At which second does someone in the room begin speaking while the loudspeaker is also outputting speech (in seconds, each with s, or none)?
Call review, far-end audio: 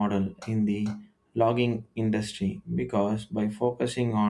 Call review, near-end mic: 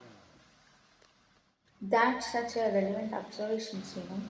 1.8 s